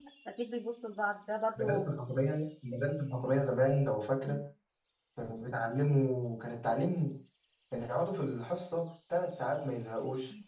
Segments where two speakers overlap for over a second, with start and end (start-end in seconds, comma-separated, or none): none